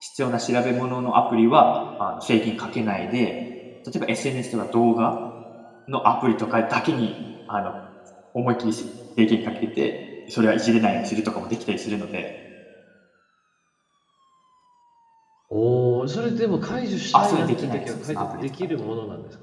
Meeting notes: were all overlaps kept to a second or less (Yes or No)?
No